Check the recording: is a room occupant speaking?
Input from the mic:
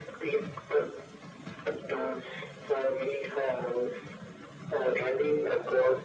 No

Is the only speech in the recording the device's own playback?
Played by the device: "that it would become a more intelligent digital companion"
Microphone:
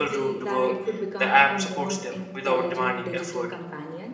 No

